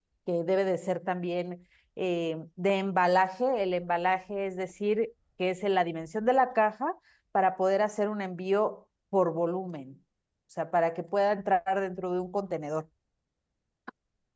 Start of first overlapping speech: none

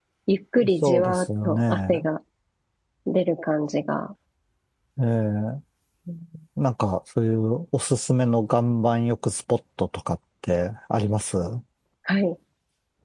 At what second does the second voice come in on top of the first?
0.7 s

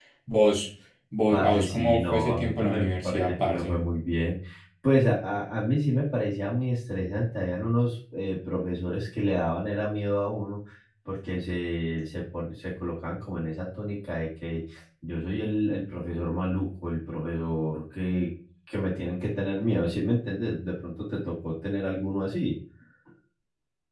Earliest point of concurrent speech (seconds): 1.3 s

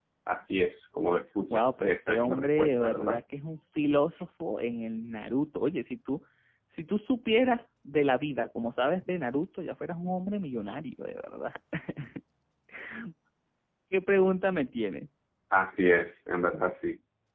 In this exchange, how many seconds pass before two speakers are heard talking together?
1.5 s

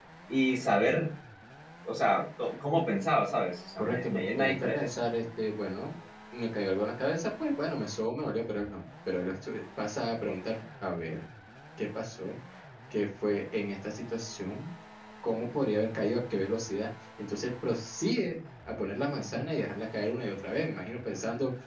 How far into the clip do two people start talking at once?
3.8 s

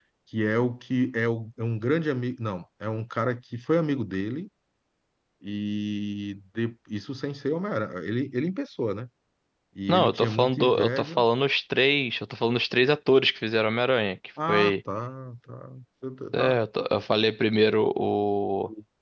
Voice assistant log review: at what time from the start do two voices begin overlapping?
9.9 s

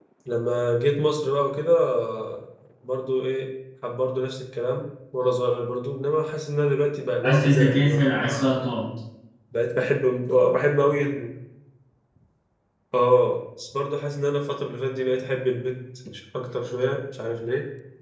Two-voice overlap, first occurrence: 7.2 s

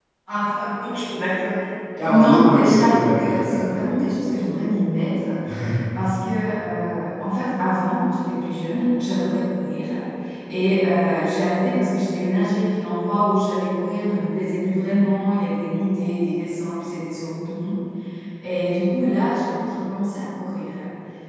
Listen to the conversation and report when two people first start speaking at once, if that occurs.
2.0 s

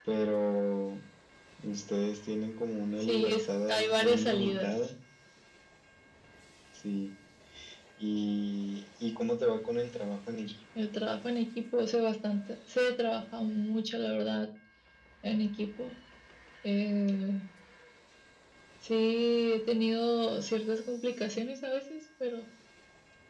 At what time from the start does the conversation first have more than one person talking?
3.0 s

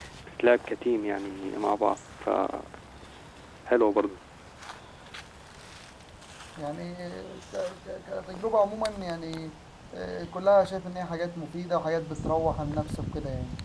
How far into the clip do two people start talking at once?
none

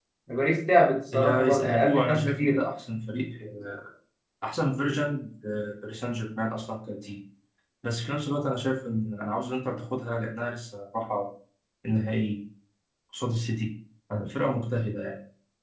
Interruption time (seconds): 1.1 s

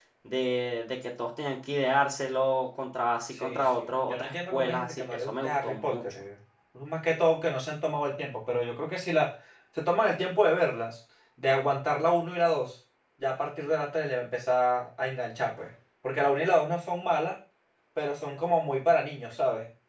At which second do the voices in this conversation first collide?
3.4 s

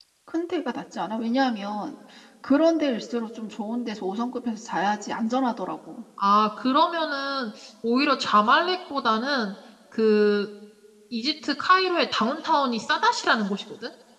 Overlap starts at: none

